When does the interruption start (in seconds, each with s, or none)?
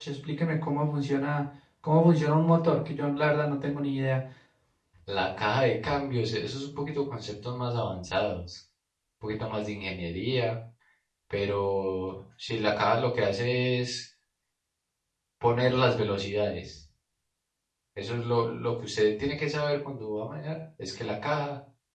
none